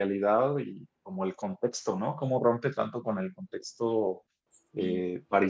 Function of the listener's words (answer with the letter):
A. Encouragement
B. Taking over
A